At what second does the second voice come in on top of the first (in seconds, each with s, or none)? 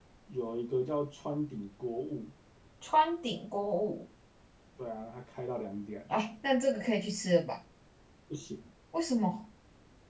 none